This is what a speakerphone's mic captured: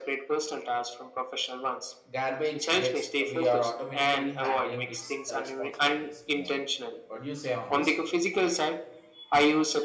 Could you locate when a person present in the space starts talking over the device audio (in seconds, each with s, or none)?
2.1 s